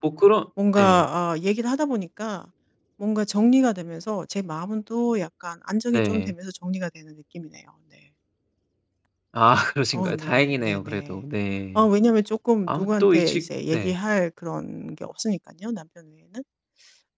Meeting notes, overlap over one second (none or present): present